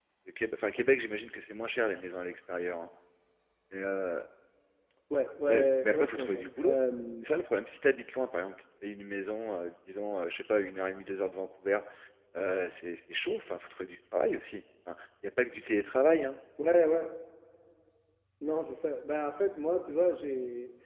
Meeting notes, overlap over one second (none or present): present